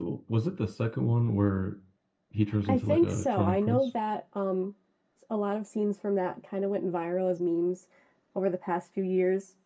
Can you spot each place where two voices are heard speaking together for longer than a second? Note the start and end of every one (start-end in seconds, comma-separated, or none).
2.6-3.9